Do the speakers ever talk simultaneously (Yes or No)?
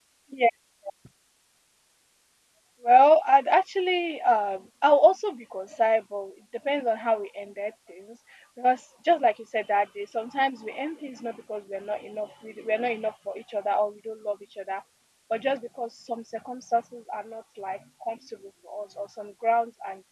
No